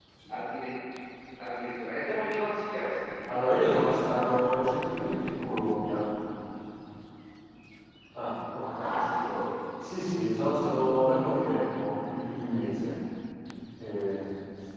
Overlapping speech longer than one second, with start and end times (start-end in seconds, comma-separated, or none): 3.3-4.5